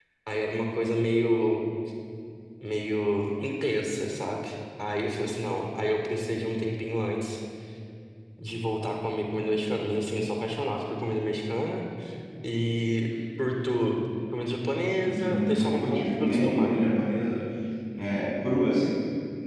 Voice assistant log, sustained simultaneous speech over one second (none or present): present